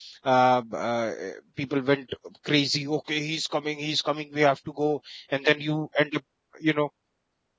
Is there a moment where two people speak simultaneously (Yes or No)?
No